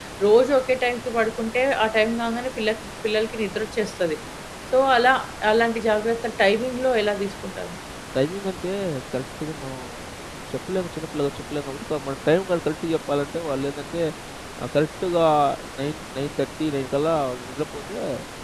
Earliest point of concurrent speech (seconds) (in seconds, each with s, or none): none